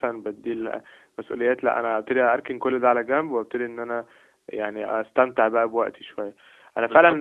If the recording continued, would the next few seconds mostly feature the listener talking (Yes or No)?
No